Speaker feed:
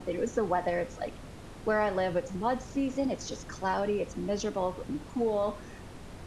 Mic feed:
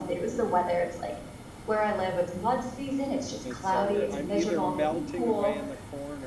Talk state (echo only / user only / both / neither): both